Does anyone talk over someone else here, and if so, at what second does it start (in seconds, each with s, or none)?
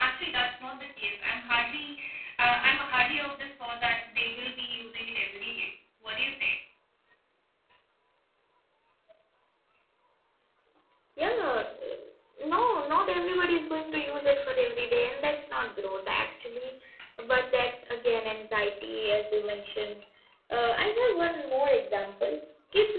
none